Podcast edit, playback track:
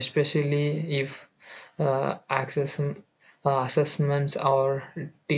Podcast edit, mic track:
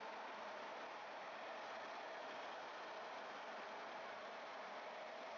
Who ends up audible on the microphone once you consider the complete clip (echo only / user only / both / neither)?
neither